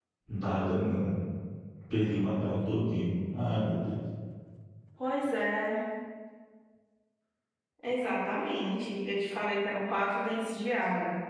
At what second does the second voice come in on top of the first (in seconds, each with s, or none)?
none